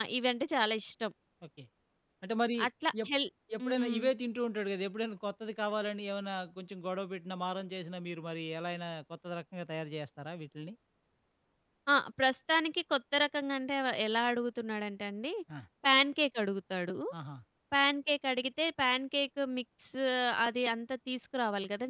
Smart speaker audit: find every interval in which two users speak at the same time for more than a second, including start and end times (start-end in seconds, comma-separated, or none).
none